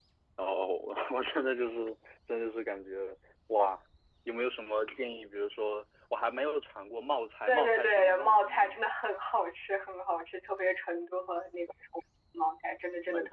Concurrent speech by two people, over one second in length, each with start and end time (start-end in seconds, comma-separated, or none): 7.5-8.7